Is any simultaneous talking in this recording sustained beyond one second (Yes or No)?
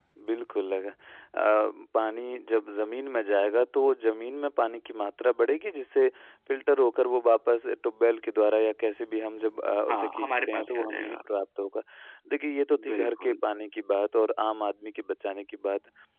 Yes